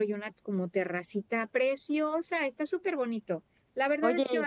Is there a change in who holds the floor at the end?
No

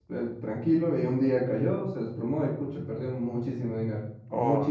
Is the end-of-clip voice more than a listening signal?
Yes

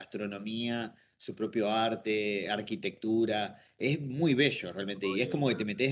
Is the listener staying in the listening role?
Yes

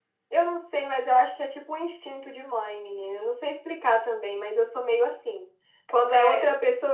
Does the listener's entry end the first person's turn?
No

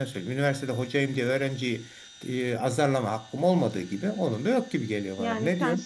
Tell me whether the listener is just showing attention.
No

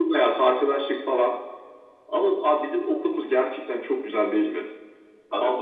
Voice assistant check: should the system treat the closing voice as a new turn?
No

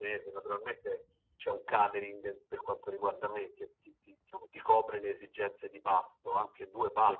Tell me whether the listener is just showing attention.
Yes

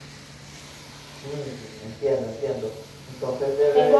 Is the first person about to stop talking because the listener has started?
Yes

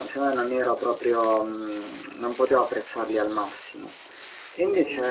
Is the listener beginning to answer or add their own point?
No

